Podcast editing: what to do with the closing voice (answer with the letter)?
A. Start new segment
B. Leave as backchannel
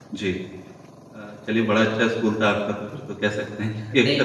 B